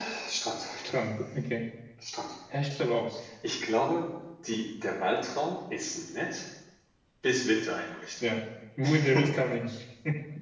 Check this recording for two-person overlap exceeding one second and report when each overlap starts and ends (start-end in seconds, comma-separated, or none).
none